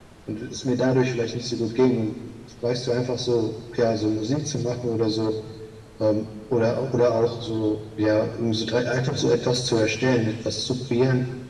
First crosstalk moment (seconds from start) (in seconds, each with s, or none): none